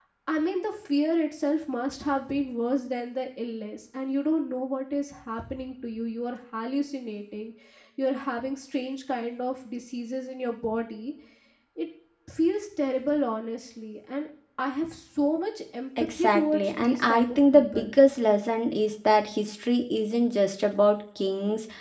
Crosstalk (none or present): present